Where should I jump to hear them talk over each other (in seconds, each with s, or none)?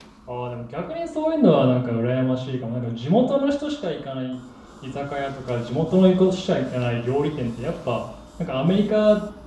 none